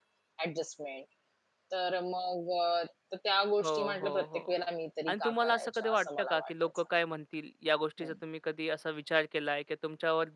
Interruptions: present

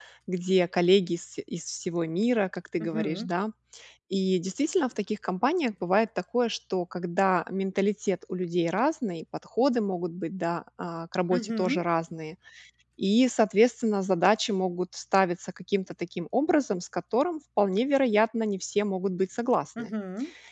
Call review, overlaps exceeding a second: none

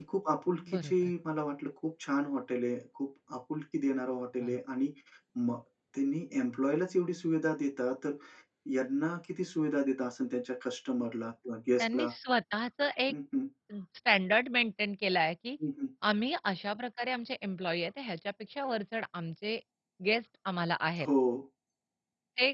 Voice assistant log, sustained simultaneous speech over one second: none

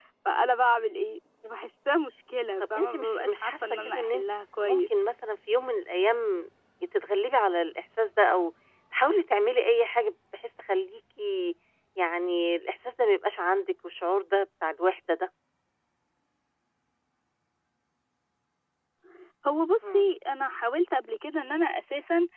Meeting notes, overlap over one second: present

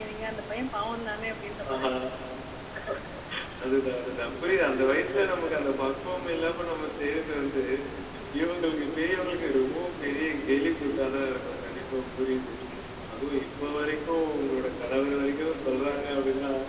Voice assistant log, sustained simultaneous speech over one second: none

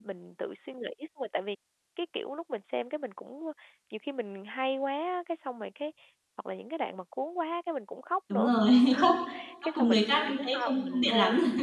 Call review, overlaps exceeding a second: present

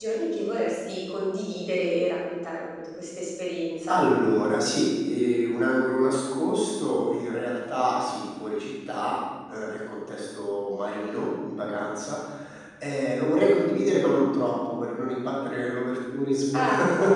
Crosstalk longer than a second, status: none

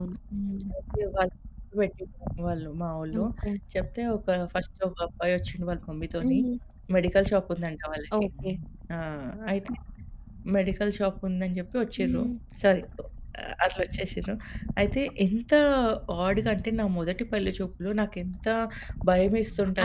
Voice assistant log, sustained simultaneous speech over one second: none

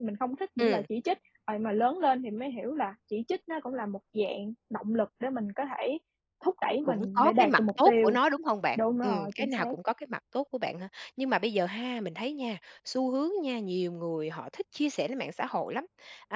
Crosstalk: present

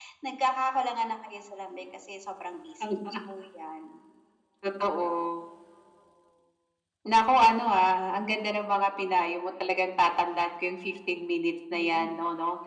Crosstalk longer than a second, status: none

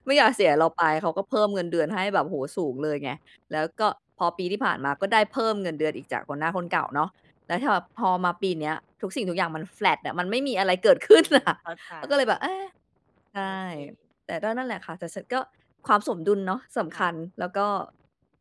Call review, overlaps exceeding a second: none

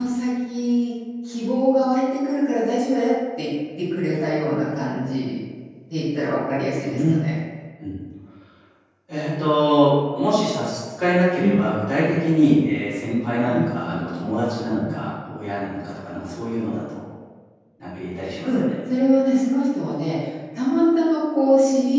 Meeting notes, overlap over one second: none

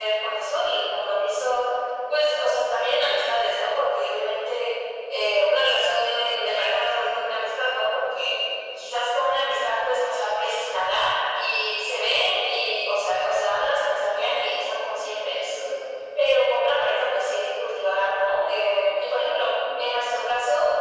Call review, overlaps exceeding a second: none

